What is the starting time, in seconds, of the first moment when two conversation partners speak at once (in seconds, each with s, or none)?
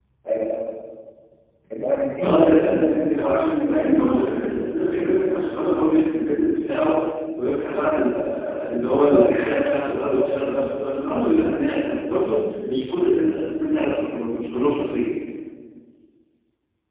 2.2 s